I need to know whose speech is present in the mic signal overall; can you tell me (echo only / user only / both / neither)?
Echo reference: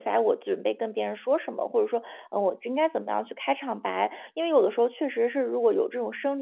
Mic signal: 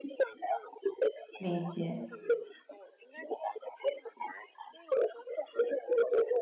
both